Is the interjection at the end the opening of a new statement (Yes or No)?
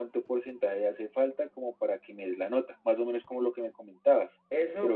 Yes